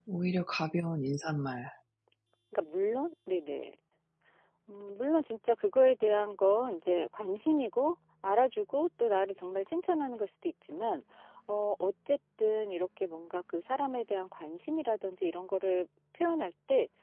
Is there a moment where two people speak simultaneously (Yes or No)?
No